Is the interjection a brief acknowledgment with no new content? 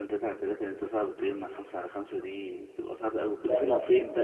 Yes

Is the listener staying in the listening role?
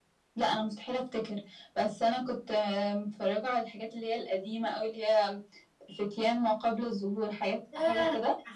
No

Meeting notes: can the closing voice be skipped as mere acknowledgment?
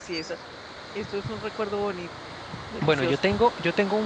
No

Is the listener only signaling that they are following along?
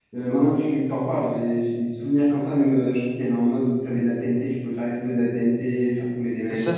No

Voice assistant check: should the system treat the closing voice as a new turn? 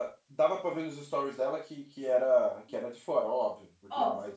Yes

